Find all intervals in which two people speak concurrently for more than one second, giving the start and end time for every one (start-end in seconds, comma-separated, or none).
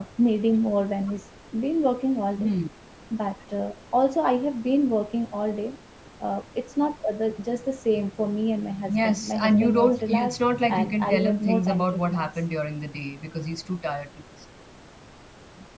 8.9-12.3